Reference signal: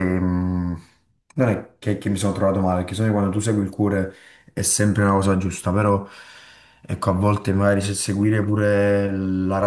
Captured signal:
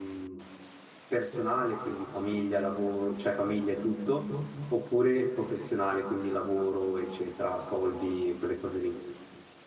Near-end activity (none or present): present